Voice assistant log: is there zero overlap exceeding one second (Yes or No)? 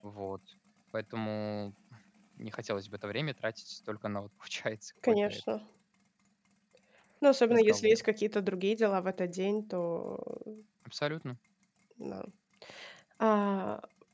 Yes